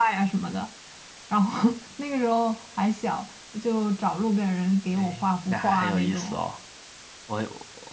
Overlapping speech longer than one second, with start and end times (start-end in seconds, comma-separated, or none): 5.0-6.4